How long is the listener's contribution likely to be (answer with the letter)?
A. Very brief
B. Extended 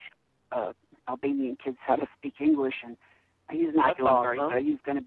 A